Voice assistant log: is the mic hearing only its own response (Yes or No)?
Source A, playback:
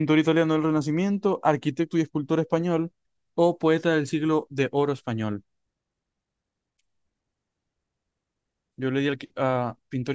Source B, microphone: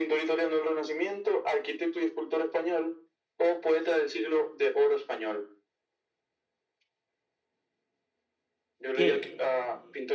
No